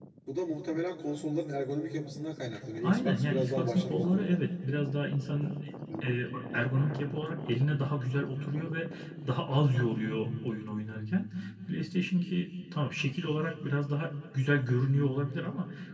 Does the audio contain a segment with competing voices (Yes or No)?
Yes